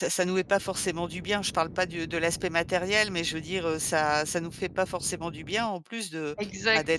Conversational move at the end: listening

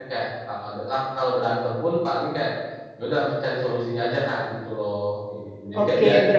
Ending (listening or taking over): taking over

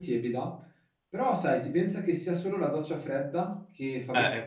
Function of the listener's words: taking over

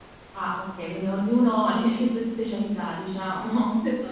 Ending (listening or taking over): taking over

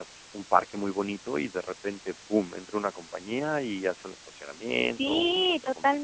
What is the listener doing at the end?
taking over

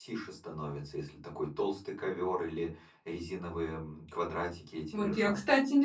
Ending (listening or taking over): taking over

